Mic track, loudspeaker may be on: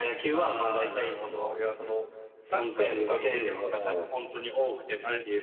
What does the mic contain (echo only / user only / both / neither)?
both